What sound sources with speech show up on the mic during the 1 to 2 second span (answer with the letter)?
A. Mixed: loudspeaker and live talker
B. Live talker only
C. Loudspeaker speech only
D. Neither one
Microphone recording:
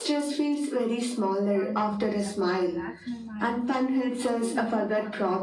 A